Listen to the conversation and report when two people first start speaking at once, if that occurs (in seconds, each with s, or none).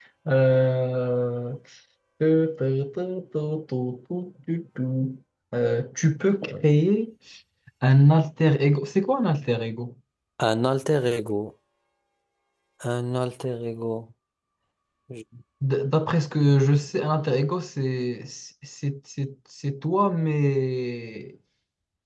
none